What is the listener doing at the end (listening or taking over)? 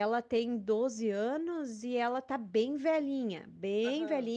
listening